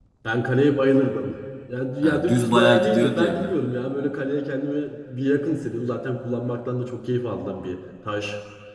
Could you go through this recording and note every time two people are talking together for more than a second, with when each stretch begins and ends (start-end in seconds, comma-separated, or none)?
2.0-3.5